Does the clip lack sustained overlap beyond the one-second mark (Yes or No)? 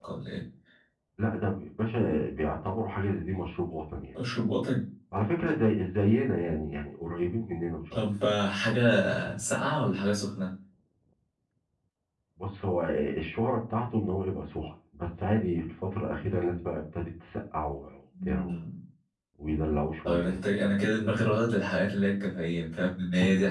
Yes